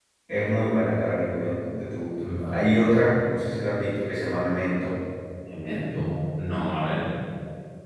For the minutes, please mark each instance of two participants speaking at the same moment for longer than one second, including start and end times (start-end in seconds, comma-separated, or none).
none